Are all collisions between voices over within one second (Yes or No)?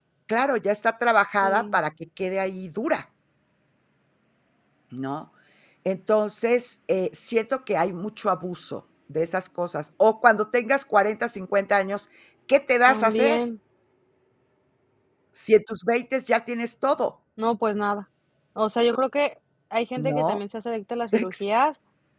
Yes